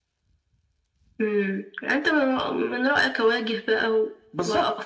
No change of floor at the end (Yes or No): No